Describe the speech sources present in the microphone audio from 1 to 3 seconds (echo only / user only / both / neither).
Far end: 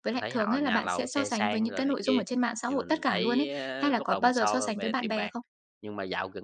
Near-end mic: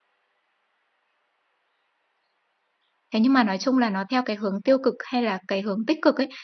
neither